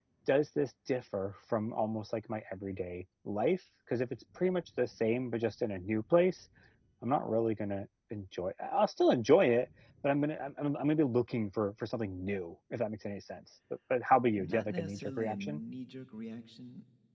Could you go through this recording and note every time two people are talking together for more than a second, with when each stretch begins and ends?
14.4-15.6

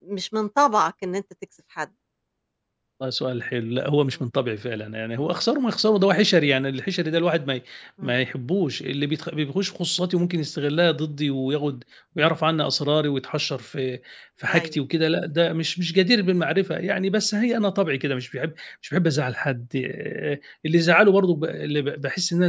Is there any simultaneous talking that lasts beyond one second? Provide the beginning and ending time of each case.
none

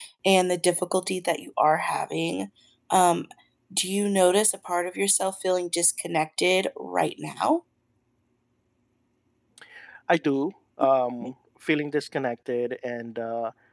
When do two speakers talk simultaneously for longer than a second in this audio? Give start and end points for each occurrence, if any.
none

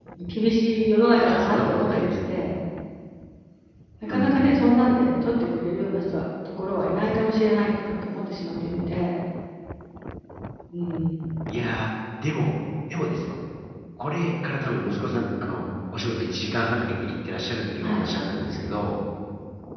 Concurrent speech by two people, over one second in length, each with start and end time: 1.1-2.5

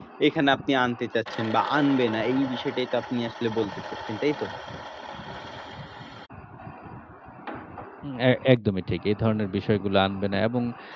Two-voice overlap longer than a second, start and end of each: none

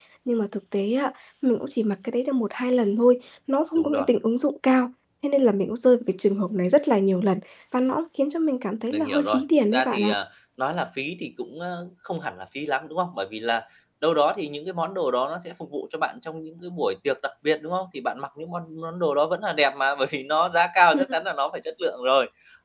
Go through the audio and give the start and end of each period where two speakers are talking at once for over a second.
8.9-10.1

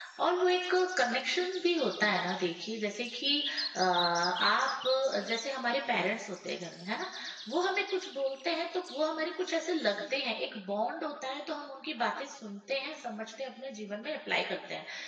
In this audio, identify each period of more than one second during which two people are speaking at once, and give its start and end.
none

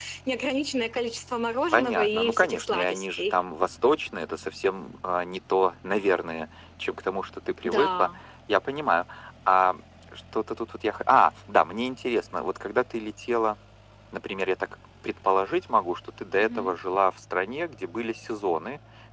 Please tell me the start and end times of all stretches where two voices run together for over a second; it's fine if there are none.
1.7-3.4

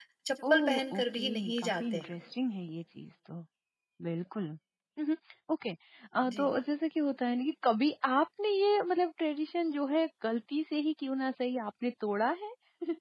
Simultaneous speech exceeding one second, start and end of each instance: 0.5-2.0

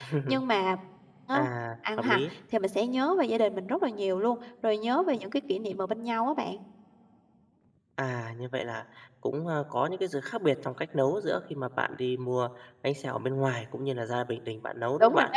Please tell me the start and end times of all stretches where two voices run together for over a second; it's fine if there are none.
none

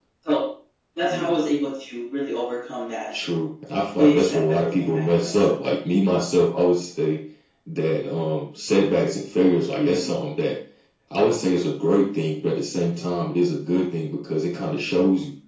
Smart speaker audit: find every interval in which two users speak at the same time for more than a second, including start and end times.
4.0-5.5

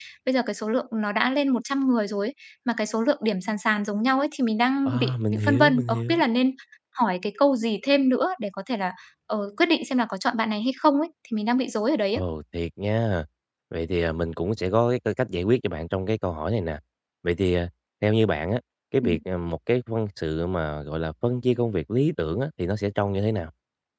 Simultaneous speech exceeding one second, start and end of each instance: 4.8-6.2

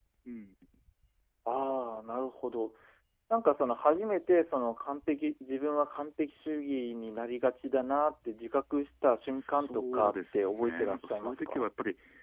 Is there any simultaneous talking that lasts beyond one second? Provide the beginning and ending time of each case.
9.3-11.7

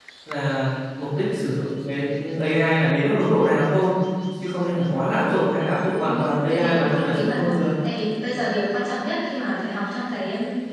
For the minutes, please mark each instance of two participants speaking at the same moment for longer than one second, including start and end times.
6.1-7.7

